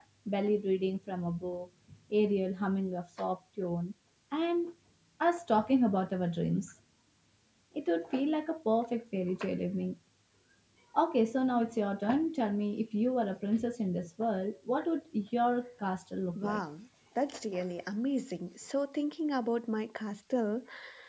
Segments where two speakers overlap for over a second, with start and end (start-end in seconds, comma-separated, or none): none